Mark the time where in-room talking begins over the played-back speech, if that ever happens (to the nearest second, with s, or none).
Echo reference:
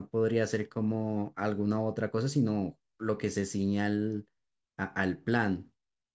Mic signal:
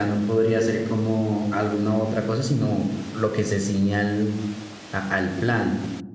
none